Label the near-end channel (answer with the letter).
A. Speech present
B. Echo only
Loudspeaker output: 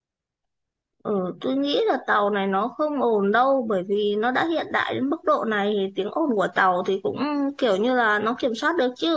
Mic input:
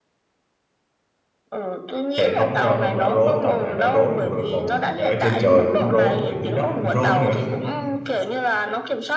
A